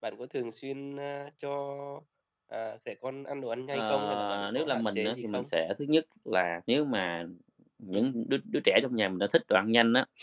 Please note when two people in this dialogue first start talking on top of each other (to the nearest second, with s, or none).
4 s